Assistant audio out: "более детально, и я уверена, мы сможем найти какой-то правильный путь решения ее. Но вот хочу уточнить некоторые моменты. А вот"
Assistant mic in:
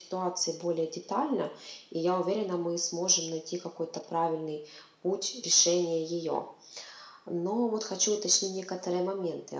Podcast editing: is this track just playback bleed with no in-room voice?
Yes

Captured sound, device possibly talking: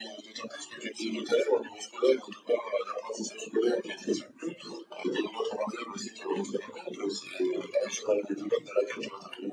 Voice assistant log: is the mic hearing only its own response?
Yes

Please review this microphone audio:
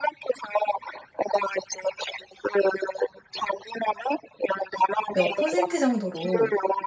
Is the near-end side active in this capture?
Yes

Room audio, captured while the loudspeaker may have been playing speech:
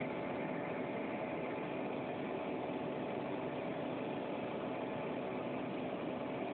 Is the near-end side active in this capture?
No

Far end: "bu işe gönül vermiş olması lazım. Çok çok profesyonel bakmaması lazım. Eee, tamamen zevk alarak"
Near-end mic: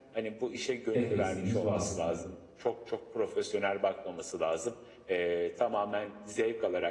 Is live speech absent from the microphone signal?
No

